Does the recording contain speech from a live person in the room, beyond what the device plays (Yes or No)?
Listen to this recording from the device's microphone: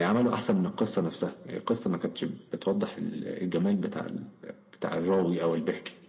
No